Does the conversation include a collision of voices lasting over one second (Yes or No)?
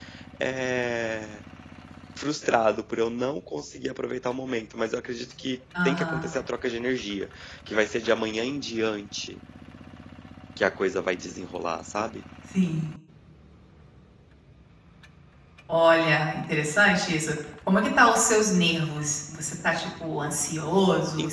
No